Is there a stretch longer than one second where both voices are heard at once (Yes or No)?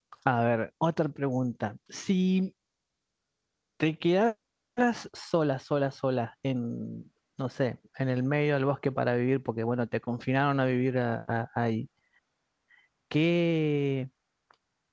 No